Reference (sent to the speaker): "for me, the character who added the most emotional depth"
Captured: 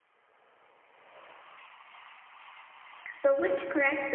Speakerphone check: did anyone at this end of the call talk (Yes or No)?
Yes